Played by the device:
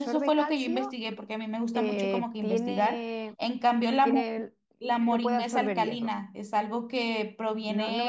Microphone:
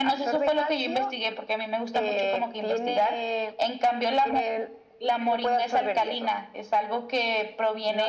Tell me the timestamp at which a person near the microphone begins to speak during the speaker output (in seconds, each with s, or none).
none